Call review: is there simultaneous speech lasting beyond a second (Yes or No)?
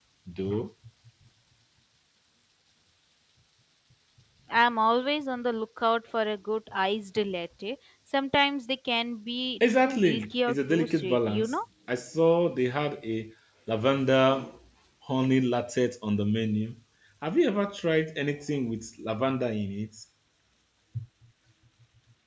Yes